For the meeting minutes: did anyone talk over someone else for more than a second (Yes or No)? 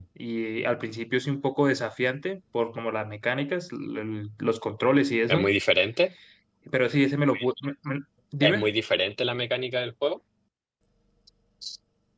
No